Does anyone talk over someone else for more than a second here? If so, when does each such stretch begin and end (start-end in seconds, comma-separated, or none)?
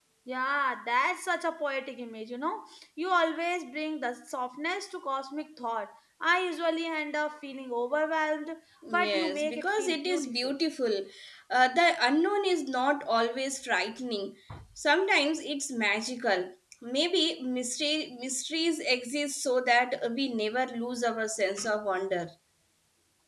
8.9-10.5